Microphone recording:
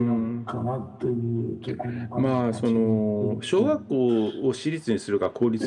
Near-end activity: present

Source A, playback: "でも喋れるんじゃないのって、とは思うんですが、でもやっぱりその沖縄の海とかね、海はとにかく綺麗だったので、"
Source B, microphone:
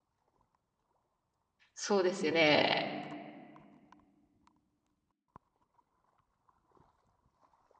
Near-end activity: present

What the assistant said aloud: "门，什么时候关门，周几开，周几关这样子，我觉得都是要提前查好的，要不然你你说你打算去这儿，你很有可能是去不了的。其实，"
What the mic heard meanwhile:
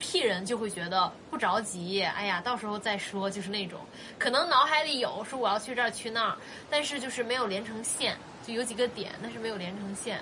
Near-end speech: present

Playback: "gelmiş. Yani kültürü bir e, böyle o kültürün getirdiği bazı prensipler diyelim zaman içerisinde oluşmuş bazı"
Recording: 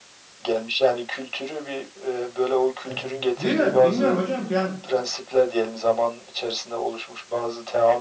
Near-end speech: present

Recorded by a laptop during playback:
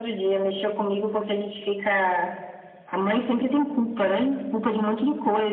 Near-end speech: none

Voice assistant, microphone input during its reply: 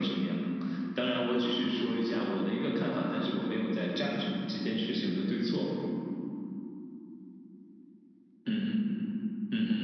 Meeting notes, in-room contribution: none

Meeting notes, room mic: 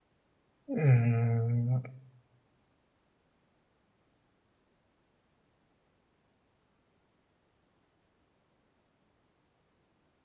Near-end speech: present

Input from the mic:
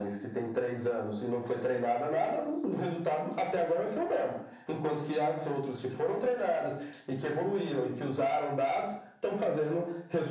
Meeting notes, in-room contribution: none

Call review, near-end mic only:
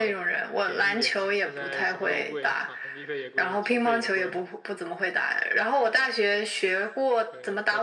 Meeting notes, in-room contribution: present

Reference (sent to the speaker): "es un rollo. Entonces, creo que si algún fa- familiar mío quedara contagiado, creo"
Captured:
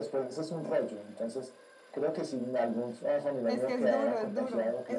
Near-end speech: present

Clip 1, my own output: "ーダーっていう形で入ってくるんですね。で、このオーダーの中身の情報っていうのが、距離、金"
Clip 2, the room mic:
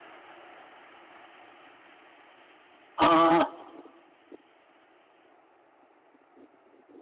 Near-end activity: present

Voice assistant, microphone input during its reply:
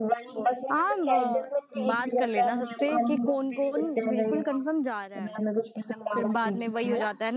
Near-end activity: present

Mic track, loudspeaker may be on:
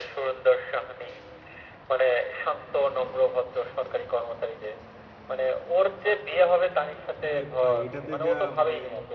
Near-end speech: present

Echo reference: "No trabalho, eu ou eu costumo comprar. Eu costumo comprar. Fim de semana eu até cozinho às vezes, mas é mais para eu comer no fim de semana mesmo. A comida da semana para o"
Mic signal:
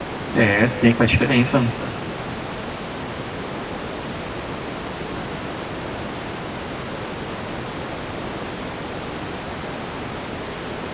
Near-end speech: present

